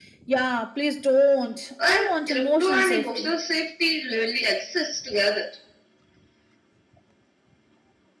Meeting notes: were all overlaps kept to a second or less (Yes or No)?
No